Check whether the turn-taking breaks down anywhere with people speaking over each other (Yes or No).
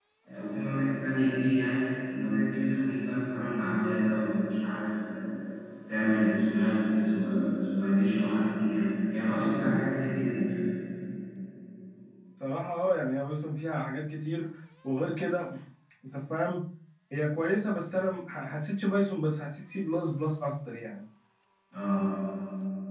No